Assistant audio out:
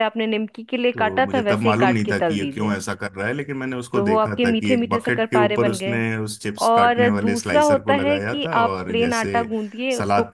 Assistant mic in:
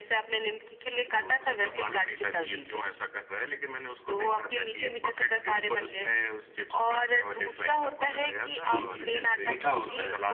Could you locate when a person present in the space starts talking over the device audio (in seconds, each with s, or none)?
8.6 s